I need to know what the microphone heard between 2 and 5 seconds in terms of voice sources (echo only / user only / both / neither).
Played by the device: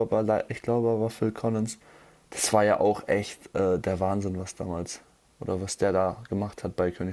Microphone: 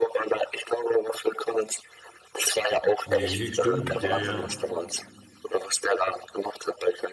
both